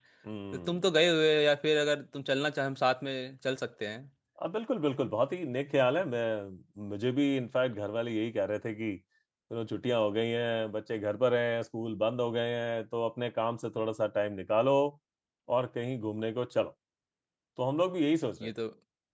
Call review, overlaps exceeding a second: none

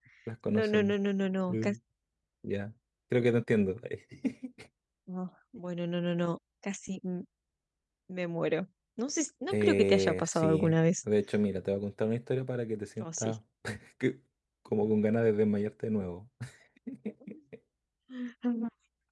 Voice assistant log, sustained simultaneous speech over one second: present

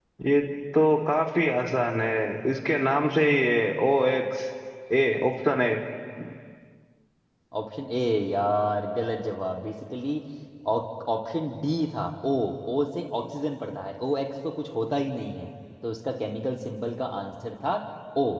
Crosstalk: none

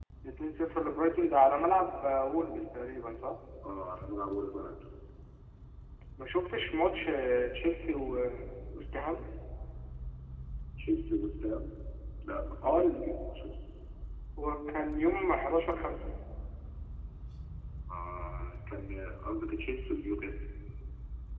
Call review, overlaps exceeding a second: none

